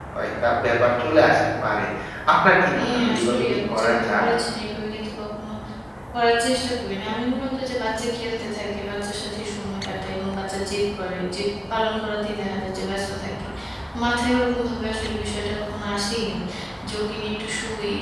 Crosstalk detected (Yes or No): Yes